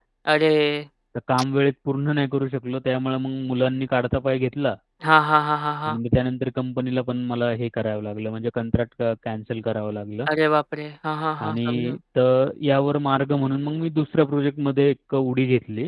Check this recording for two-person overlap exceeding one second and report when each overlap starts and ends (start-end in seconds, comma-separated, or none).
none